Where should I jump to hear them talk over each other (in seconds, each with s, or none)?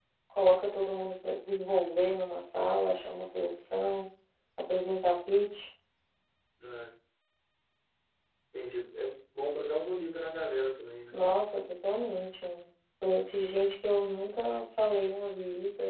none